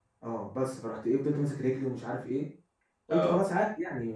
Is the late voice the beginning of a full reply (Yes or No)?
No